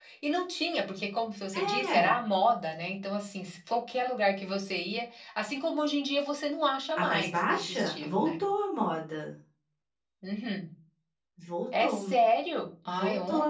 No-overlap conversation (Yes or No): No